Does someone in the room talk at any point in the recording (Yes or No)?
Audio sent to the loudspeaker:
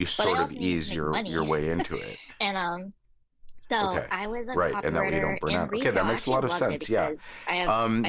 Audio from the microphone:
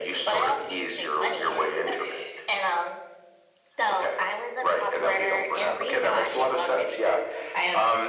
No